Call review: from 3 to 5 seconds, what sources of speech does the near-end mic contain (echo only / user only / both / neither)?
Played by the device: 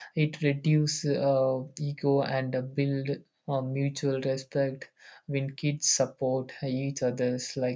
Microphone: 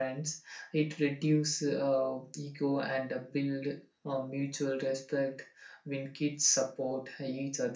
echo only